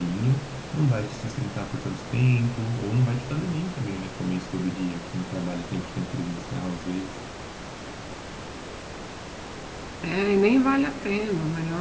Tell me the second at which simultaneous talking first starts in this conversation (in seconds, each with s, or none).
none